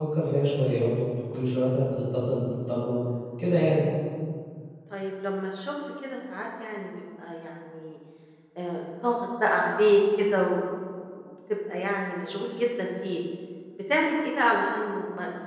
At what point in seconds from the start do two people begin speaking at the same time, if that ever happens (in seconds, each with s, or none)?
none